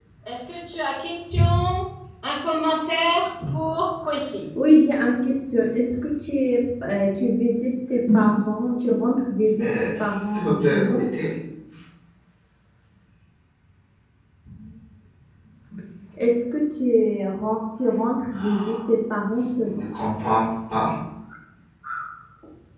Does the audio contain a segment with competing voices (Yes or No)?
Yes